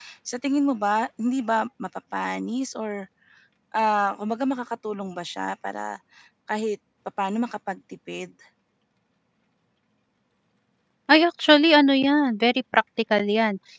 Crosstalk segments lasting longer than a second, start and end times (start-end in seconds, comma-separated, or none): none